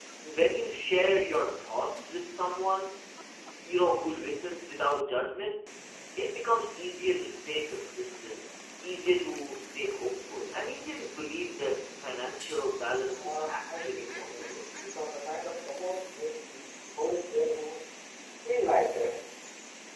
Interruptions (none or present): present